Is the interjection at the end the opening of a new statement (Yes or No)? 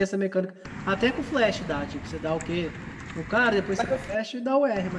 No